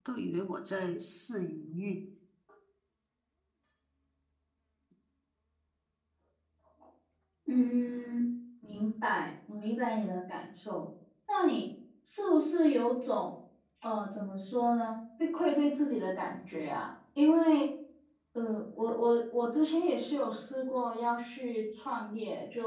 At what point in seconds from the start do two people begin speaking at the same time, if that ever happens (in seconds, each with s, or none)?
none